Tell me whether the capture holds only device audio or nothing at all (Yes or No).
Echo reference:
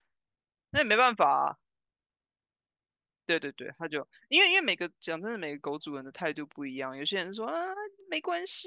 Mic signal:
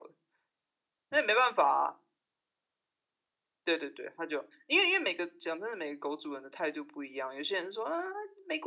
Yes